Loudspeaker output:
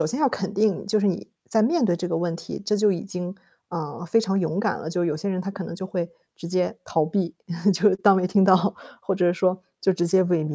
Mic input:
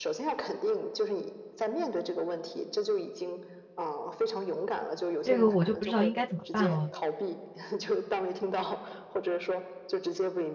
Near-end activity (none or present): present